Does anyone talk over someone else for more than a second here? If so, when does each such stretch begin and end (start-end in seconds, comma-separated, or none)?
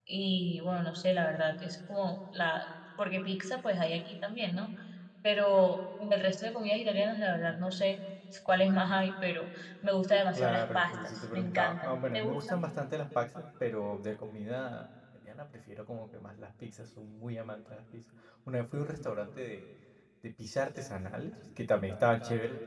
10.3-12.6